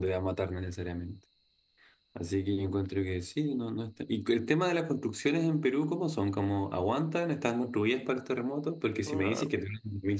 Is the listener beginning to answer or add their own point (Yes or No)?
No